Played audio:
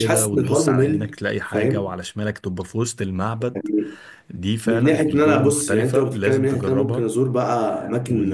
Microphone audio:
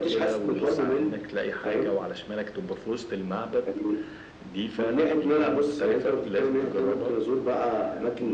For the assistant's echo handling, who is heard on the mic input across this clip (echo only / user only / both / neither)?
echo only